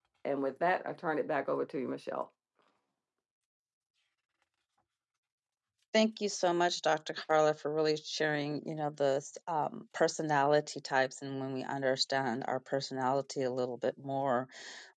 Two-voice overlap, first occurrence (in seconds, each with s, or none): none